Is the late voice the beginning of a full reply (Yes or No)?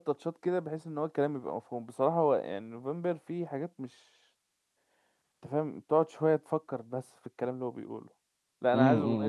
Yes